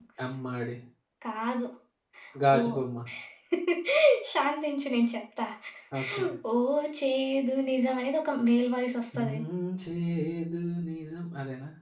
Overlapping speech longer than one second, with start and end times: none

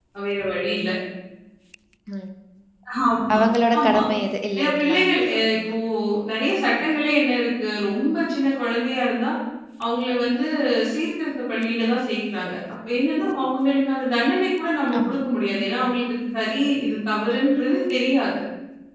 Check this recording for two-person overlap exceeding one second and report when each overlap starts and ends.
none

